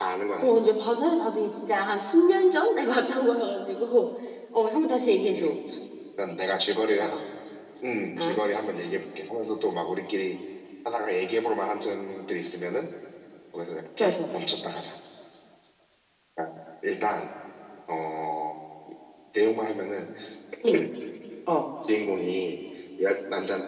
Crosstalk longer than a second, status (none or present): none